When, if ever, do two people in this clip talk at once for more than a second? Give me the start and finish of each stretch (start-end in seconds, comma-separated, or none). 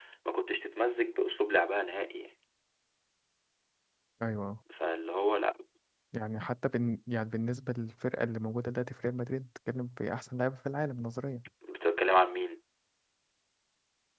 none